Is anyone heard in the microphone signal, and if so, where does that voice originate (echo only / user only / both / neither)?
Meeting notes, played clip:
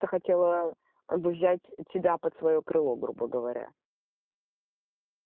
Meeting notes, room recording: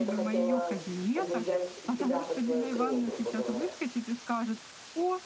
both